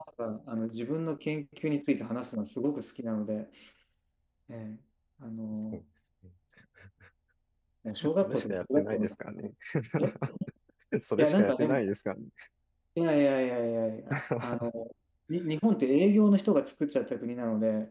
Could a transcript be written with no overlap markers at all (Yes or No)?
No